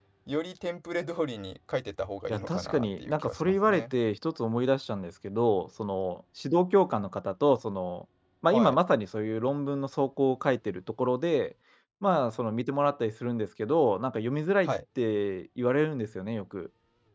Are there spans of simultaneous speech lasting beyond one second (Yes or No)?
Yes